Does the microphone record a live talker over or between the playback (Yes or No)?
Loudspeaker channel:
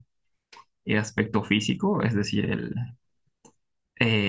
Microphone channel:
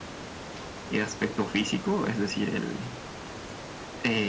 No